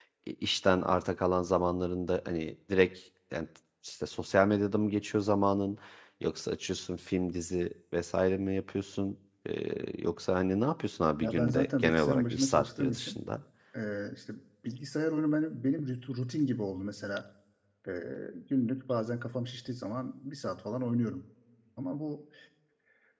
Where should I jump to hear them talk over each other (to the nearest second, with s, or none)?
11 s